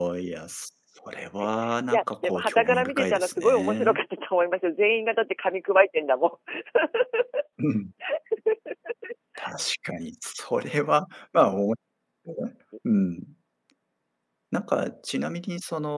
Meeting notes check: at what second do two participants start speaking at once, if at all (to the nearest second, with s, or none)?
2 s